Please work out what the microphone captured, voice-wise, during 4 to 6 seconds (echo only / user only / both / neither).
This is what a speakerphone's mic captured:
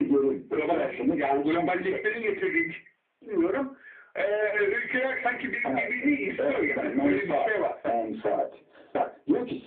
echo only